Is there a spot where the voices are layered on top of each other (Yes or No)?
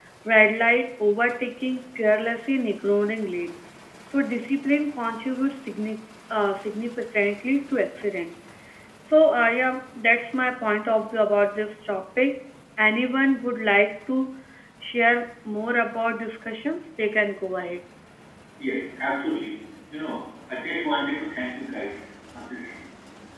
No